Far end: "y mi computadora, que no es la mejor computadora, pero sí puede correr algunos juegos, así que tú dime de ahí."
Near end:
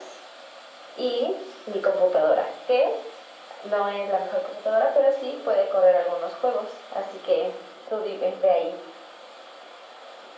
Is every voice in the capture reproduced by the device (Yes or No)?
Yes